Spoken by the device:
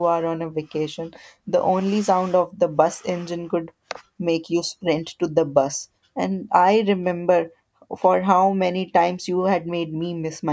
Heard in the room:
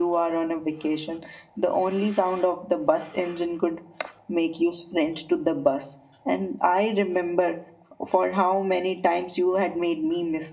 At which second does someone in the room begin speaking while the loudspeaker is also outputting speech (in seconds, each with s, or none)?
none